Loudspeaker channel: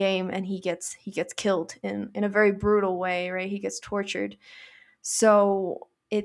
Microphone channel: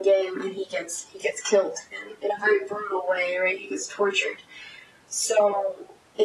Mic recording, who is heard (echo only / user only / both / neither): echo only